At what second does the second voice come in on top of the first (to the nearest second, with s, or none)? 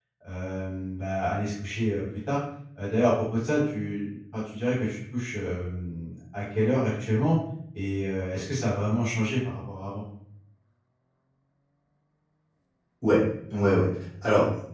none